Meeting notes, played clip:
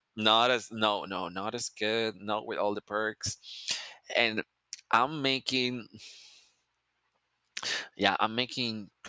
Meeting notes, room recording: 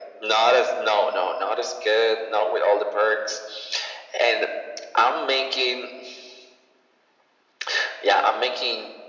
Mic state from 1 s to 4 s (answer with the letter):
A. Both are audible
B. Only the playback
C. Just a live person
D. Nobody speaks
B